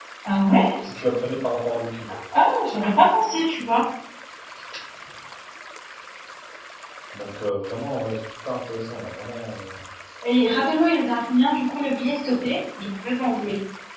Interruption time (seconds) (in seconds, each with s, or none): none